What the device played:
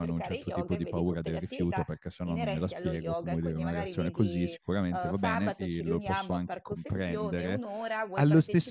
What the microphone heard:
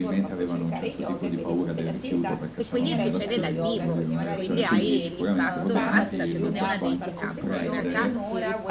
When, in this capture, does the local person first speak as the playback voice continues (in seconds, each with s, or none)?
2.6 s